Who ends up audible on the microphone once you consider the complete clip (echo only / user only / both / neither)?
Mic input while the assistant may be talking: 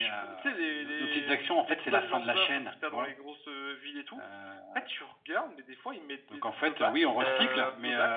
both